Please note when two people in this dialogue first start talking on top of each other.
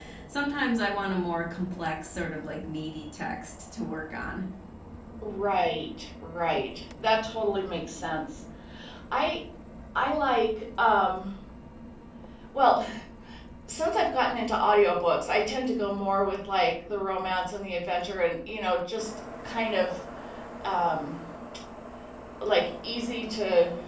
none

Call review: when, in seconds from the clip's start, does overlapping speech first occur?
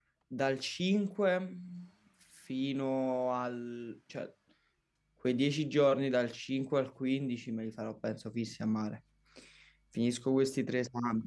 none

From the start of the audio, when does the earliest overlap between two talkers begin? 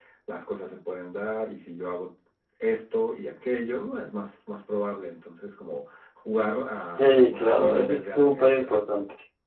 7.0 s

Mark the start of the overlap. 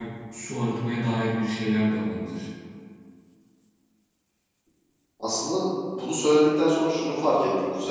none

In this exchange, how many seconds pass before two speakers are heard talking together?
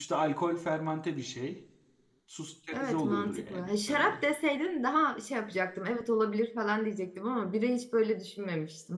2.8 s

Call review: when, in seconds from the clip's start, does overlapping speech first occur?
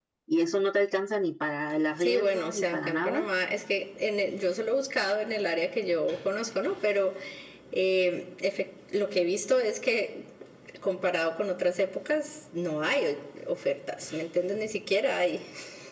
2.0 s

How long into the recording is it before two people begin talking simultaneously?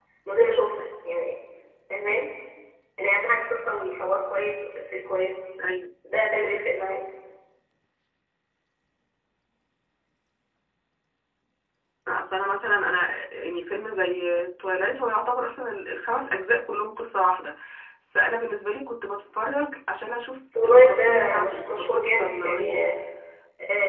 20.6 s

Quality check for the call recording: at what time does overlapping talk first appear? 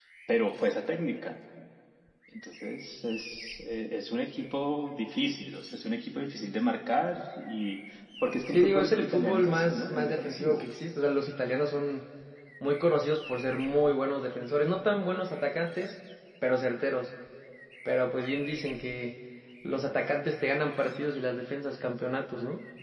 8.5 s

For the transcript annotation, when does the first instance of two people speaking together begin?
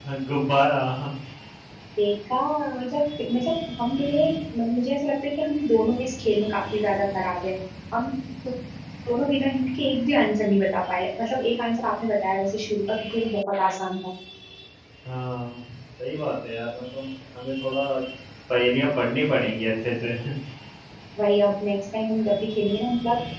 none

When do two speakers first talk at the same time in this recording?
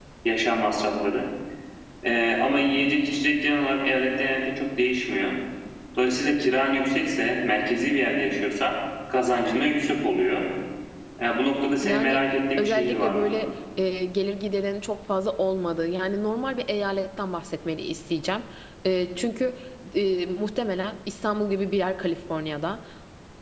11.8 s

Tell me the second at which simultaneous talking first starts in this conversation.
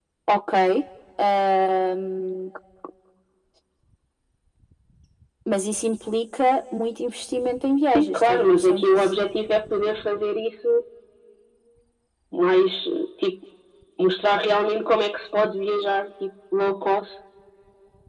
7.8 s

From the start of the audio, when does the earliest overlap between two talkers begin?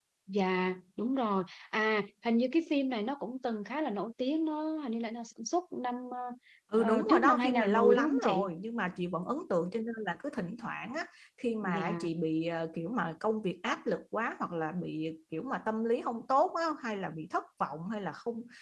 6.8 s

